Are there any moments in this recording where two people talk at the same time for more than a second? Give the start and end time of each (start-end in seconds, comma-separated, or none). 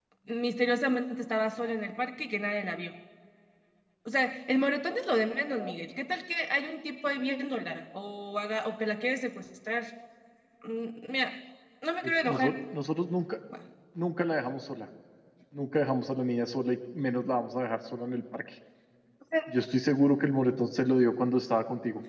none